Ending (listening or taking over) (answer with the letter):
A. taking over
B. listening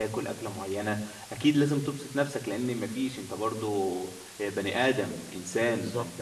B